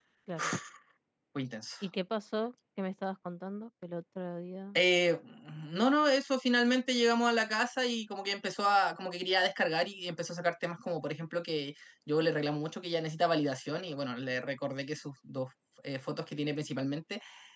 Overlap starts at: none

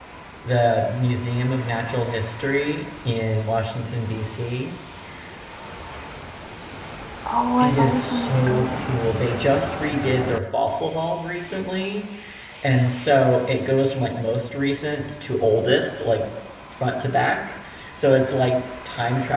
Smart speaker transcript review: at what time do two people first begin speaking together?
7.6 s

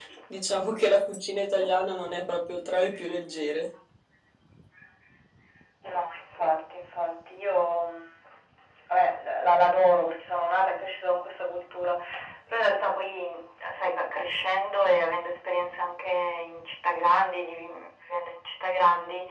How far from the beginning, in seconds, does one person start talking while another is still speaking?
none

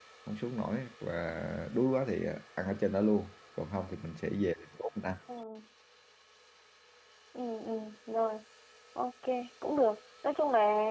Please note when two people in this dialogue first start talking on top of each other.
none

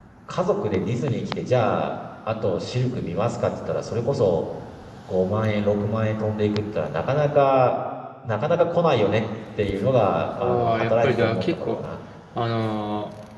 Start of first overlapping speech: 10.4 s

